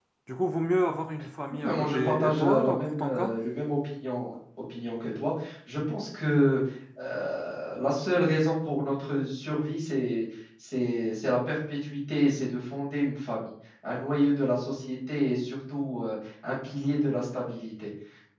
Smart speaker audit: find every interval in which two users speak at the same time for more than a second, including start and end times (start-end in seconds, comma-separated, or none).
1.6-3.4